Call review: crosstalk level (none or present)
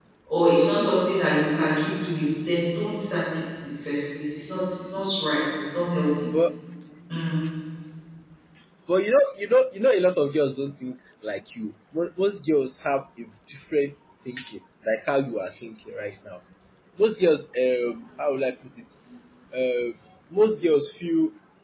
none